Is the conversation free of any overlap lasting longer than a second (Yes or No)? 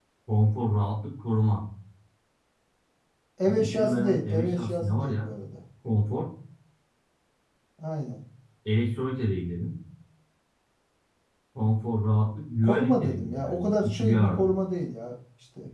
No